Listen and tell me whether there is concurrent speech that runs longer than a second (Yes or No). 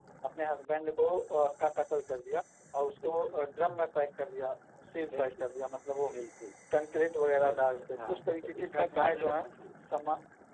Yes